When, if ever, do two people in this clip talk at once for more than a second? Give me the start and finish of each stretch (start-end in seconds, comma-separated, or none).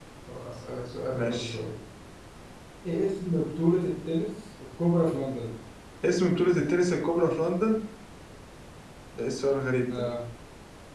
none